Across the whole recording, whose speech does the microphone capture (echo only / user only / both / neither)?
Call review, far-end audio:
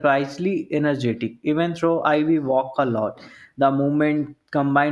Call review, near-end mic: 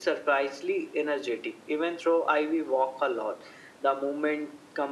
echo only